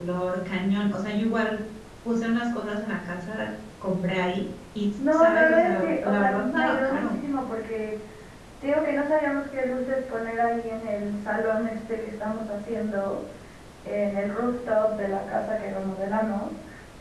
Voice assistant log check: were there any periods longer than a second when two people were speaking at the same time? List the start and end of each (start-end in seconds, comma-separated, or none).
5.0-7.1